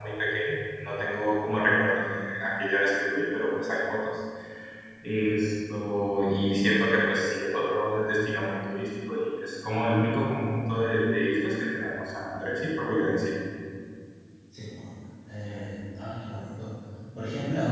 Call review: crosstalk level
none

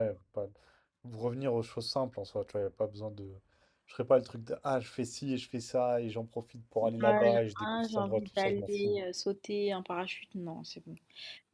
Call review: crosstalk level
present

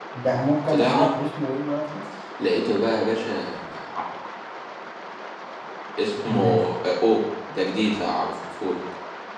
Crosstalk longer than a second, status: none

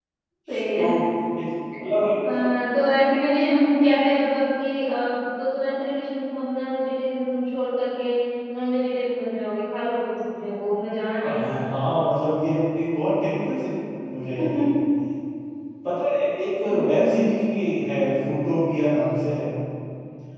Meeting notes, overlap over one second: none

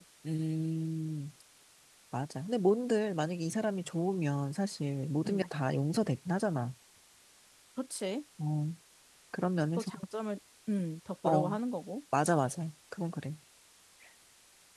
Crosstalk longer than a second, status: none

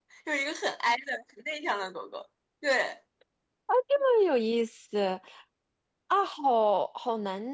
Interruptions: none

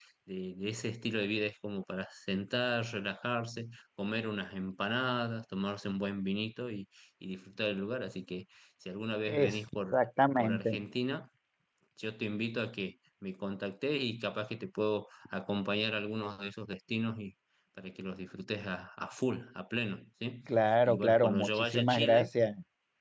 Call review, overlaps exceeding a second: present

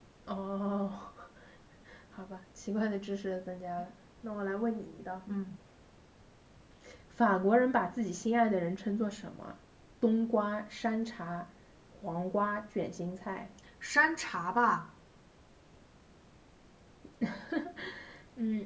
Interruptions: none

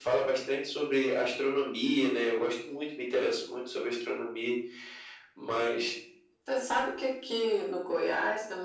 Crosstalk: none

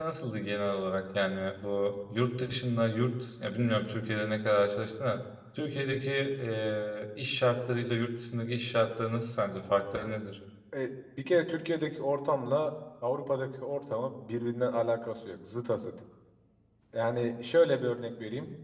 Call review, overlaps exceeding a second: none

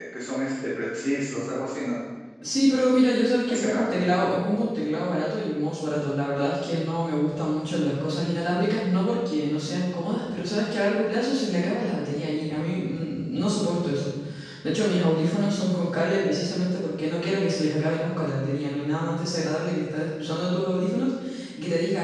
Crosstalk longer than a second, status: none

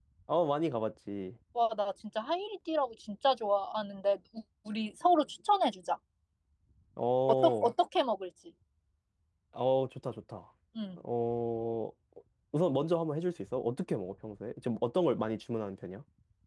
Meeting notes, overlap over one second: none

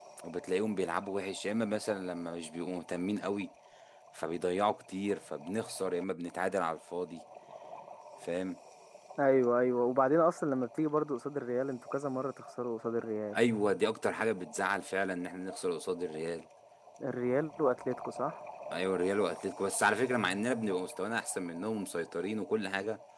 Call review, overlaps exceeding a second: none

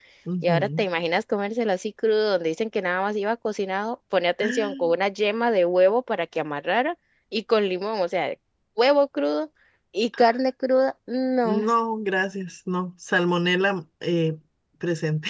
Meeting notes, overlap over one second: none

